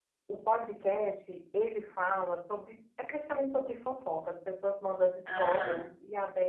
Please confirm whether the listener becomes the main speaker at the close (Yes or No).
No